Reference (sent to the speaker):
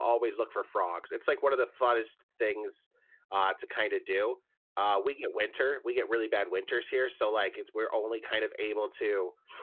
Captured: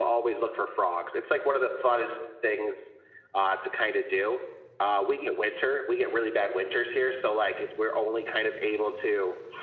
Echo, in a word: present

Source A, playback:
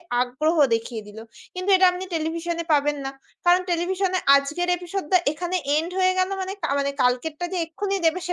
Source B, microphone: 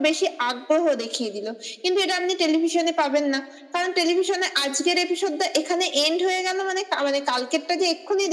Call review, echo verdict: present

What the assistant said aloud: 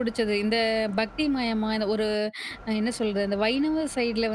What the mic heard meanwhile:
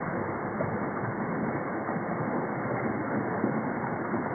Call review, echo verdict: none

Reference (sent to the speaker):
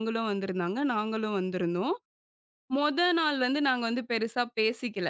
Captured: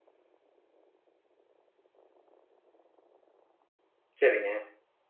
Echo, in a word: none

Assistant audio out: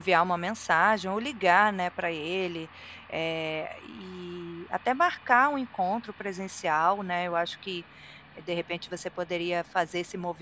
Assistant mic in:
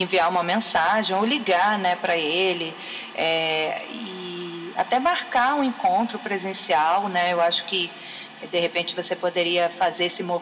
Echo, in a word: present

